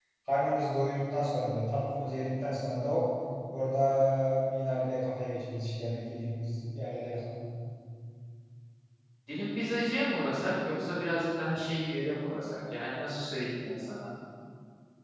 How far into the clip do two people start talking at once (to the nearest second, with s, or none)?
none